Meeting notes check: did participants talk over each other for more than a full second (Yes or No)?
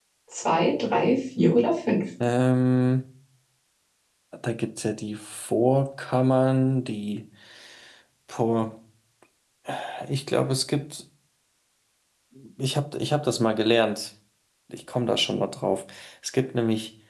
No